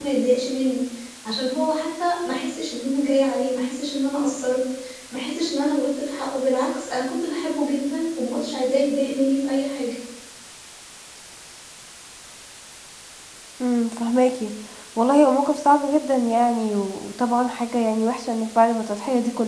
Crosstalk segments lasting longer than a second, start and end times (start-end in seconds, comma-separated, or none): none